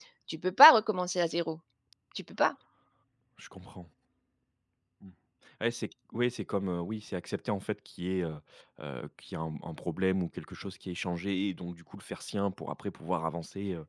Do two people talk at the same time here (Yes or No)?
No